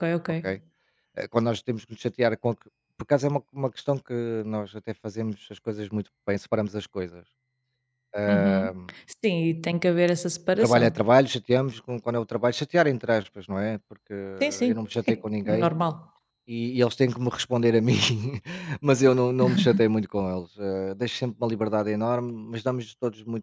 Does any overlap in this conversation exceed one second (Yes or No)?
No